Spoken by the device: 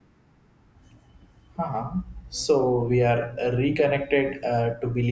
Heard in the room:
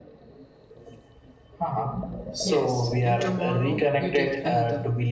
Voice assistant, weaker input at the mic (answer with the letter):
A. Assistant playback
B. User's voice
B